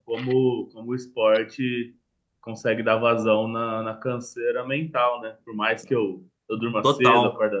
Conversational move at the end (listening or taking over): listening